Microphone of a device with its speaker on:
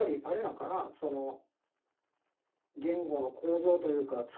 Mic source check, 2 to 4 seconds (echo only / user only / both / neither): echo only